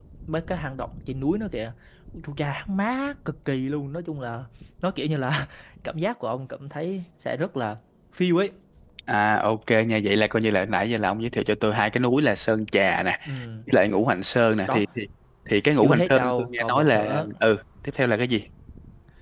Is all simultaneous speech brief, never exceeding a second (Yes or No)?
No